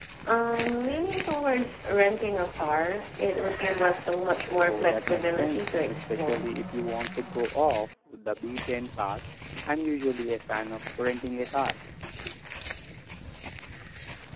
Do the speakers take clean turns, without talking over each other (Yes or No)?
No